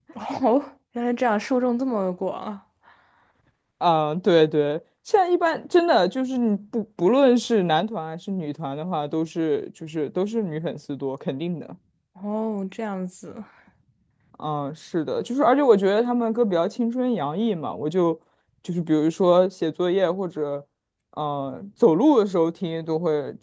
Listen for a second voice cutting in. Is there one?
No

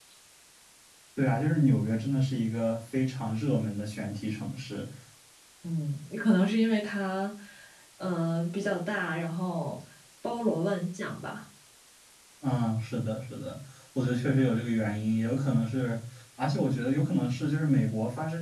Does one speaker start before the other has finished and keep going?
No

